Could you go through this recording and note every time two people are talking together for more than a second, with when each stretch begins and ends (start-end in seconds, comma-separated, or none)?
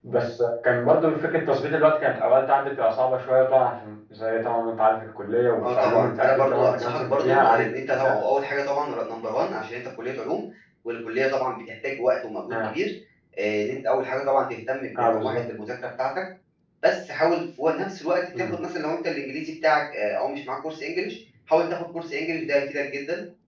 5.6-7.6